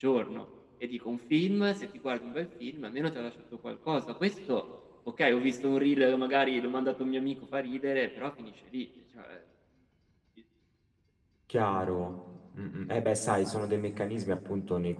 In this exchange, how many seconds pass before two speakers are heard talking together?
none

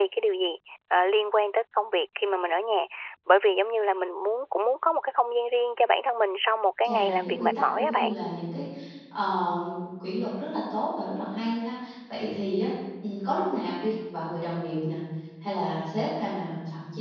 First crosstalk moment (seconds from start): 6.8 s

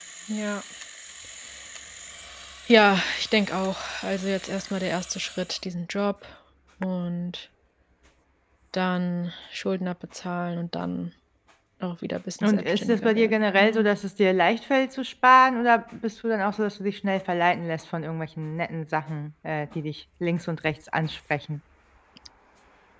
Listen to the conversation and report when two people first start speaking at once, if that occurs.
12.4 s

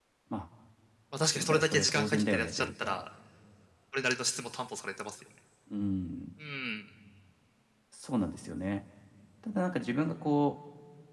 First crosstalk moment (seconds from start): 1.3 s

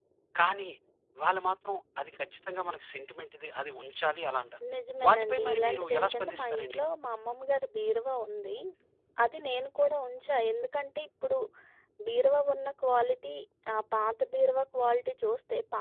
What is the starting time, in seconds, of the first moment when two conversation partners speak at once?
5.0 s

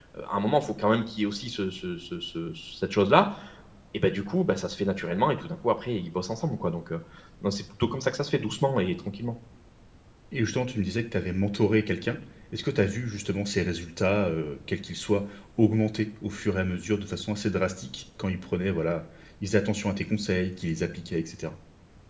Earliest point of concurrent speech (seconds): none

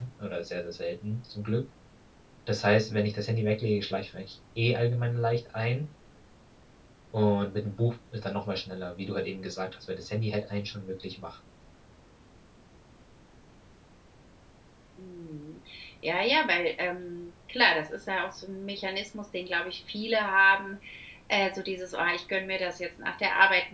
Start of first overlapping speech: none

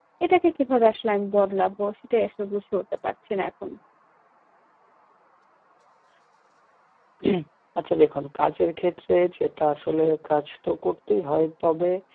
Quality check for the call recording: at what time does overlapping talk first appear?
none

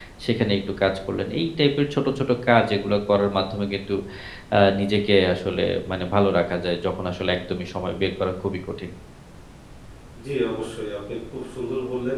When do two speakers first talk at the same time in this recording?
none

